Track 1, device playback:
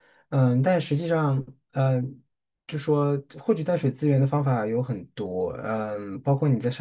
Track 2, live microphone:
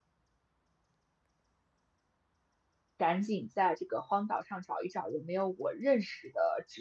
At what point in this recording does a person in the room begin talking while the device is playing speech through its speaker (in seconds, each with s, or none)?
3.0 s